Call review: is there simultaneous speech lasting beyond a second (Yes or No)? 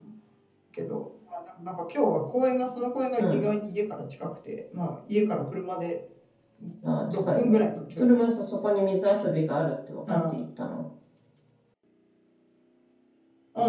No